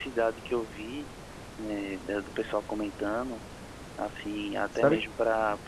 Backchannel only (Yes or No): Yes